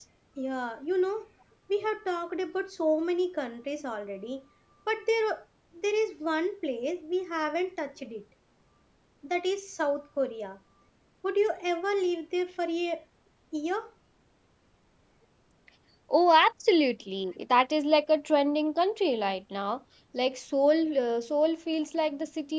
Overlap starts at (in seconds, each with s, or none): none